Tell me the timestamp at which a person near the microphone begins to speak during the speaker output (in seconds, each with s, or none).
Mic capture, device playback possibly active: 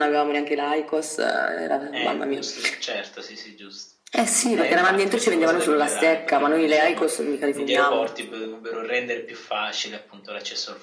1.9 s